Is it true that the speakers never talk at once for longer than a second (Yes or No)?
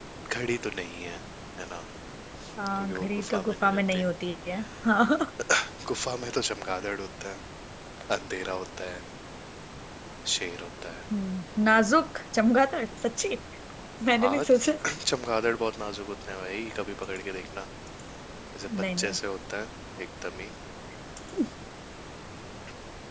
No